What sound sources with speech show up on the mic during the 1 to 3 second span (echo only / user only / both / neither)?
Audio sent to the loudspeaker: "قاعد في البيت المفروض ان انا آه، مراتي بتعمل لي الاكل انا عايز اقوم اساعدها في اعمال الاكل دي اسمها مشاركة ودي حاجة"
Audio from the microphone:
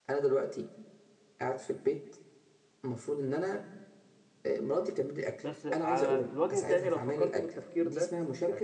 echo only